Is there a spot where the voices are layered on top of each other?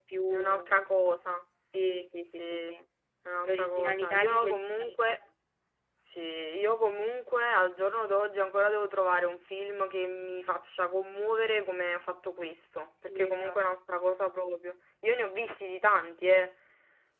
Yes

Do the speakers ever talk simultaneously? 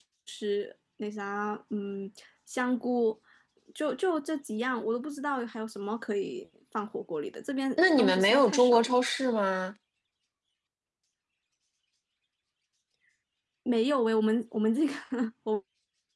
Yes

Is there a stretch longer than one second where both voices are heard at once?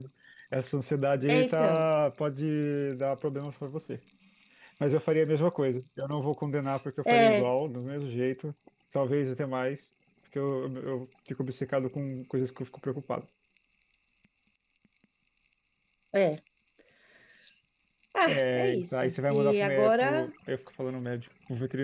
Yes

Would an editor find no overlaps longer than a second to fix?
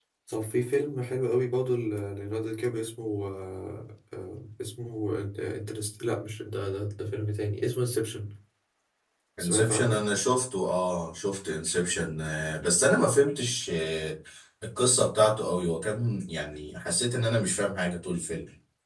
Yes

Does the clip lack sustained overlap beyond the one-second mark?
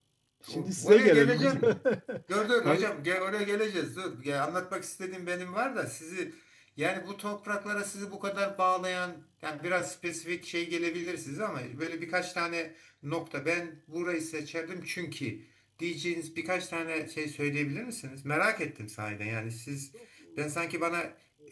No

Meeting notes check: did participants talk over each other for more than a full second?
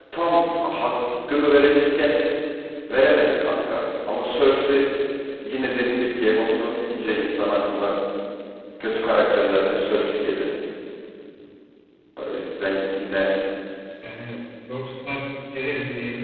No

